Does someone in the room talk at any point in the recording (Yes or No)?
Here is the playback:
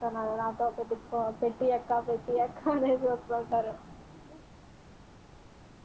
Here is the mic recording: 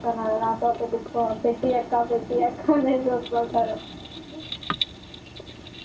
No